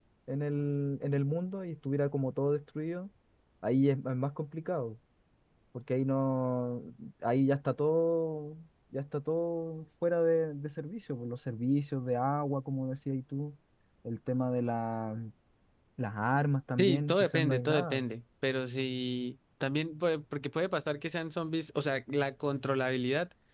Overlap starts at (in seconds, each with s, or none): 16.8 s